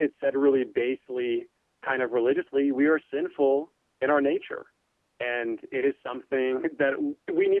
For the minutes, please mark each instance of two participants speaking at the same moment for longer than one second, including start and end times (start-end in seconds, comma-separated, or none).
none